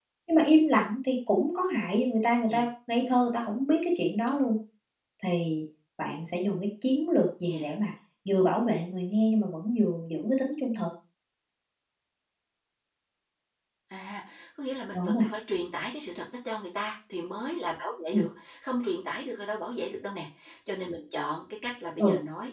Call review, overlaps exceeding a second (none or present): none